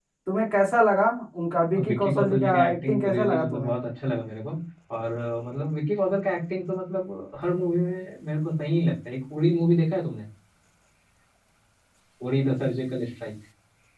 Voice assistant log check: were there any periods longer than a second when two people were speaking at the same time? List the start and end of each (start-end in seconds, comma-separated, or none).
1.8-3.7